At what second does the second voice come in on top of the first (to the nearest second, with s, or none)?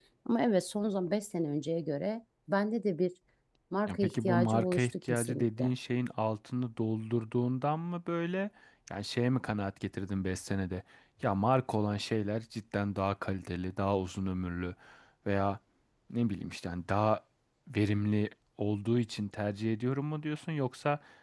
4 s